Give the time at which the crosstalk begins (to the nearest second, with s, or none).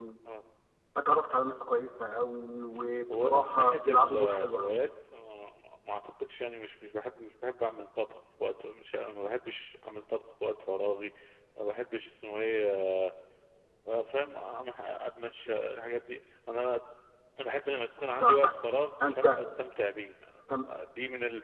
3 s